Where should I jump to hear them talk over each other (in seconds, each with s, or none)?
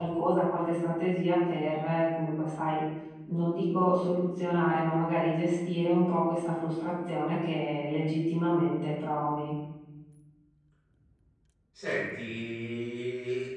none